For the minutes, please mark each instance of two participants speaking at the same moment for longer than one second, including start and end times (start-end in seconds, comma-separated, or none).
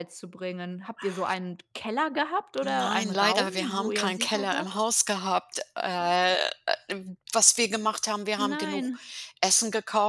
2.6-4.7